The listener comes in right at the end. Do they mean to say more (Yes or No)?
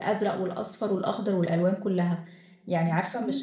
No